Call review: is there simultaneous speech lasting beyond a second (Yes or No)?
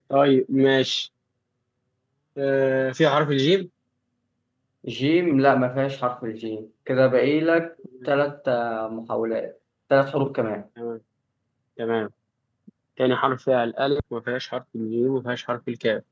No